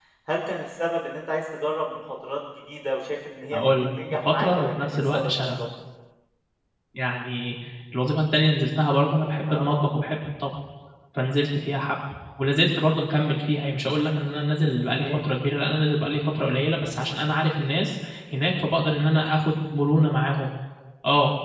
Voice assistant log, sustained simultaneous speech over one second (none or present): present